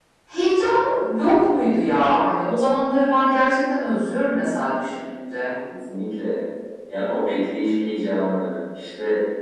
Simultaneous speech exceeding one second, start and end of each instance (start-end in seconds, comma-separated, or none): none